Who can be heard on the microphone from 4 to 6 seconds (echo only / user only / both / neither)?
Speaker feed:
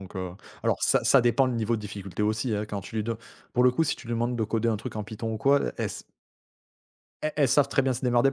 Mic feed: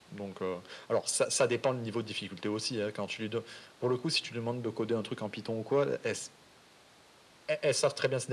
echo only